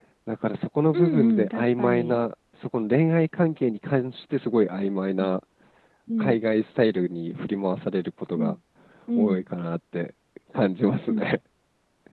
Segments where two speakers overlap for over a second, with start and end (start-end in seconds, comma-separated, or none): 0.9-2.2